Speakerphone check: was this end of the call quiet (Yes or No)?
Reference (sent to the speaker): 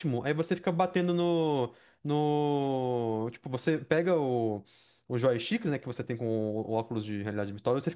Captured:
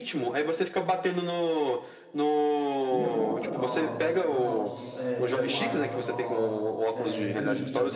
No